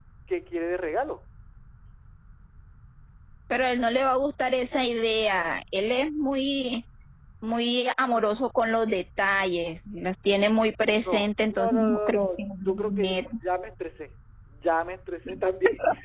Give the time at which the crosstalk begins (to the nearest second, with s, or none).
11 s